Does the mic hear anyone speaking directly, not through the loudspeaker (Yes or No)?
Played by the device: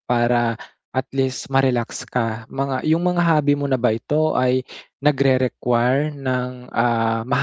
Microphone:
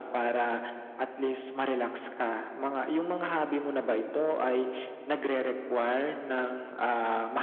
No